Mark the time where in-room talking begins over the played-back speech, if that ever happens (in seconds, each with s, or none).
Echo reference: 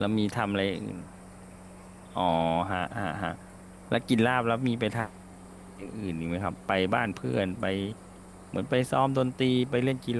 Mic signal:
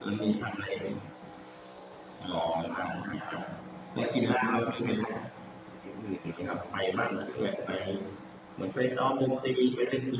none